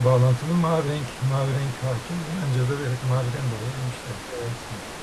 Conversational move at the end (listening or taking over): taking over